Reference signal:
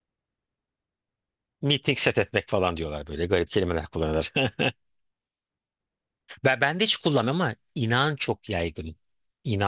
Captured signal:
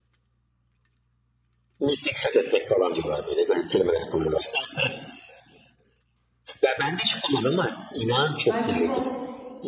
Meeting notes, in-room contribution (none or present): present